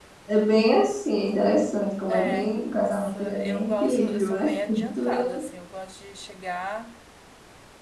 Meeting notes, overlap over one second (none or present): present